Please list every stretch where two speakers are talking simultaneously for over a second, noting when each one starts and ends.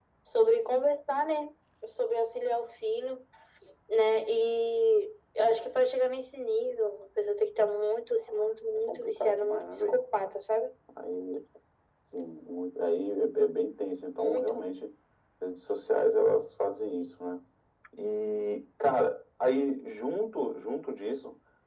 8.7-10.0

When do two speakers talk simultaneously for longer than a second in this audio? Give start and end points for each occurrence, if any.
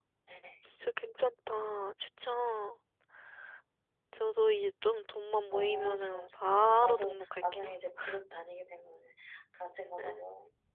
5.5-7.7

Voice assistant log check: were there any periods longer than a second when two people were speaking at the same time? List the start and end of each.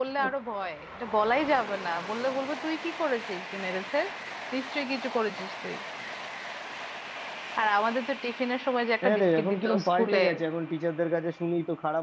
9.0-10.2

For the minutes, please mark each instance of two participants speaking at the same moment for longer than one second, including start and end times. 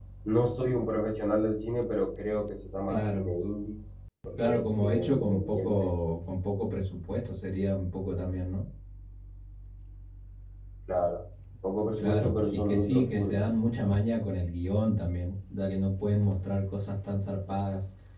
4.4-5.9, 12.0-13.4

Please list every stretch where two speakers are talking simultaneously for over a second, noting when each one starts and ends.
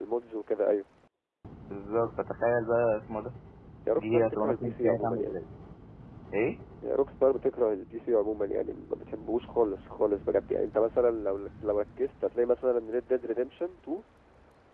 3.9-5.3

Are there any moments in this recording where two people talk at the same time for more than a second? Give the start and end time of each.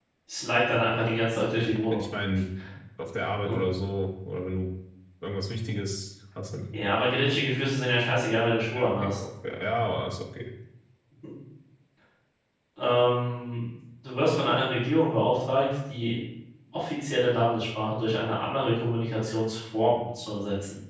none

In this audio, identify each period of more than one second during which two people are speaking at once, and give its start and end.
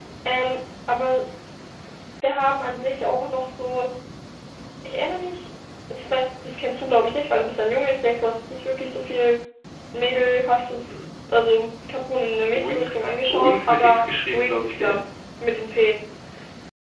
12.5-15.0

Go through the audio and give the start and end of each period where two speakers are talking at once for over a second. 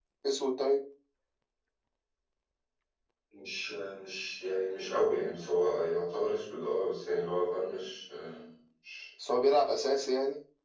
none

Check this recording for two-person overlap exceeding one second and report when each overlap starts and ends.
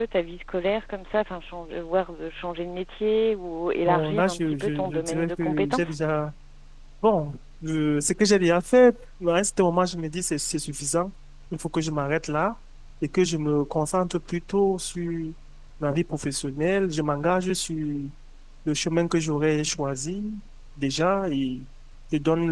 3.9-5.9

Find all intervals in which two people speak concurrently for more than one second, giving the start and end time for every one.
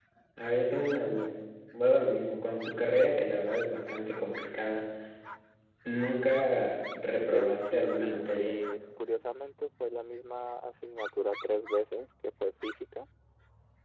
7.1-8.5

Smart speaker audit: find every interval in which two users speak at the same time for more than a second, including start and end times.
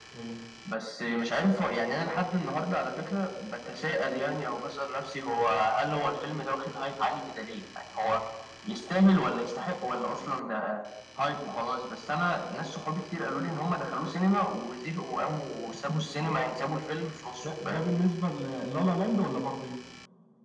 none

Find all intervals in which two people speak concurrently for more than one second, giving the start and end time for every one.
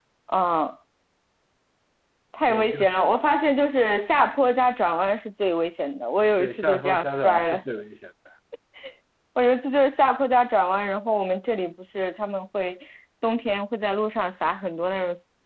6.4-7.6

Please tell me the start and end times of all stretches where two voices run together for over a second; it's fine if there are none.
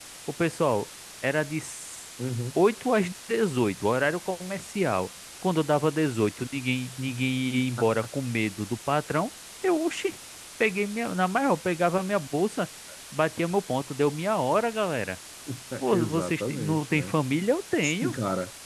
15.9-17.1

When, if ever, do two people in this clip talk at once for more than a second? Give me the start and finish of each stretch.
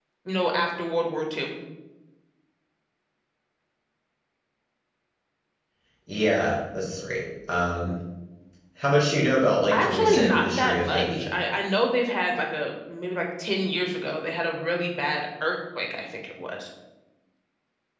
9.7-11.3

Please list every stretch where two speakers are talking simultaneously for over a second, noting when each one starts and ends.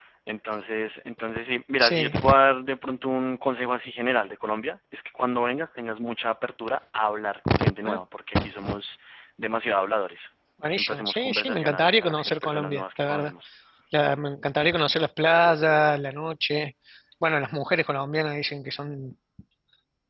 10.7-13.3

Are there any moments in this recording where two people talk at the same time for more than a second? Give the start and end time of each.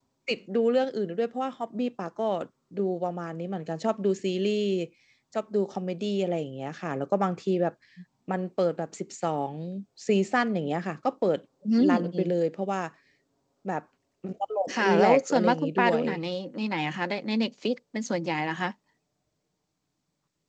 14.7-16.0

